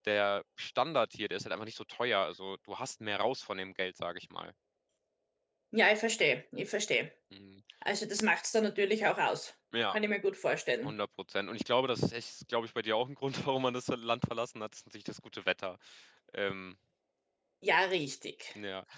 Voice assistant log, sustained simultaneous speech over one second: none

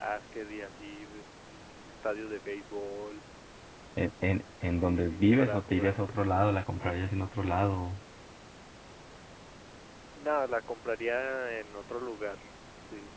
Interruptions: present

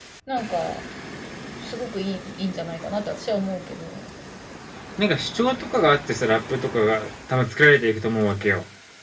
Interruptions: none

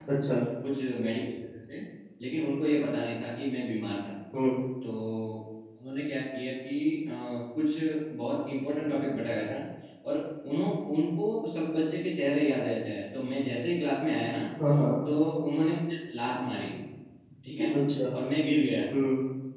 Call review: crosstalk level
none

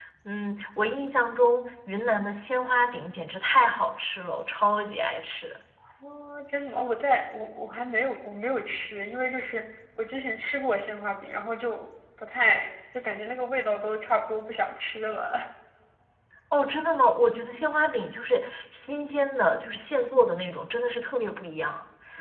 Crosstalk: none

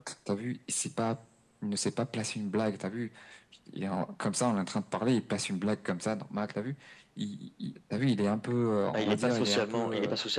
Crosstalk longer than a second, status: present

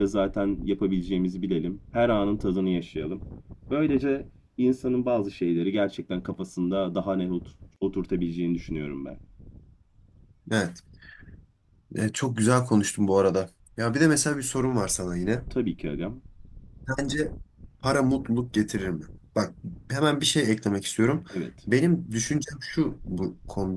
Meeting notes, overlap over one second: none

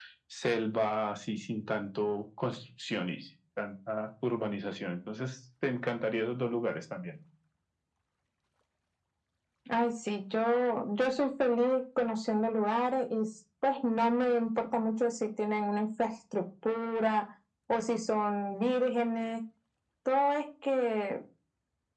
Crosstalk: none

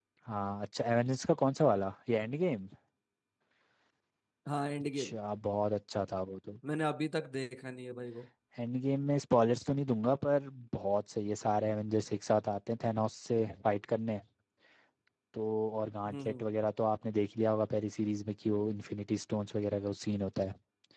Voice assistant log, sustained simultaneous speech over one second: none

